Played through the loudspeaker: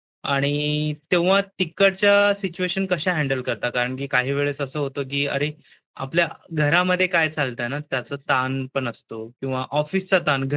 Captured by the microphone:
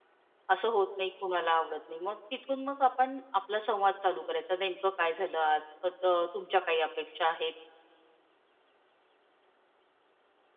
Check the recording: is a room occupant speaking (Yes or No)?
Yes